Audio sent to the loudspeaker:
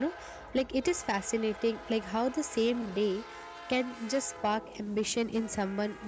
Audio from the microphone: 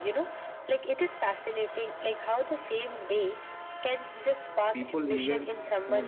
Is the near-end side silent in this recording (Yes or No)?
No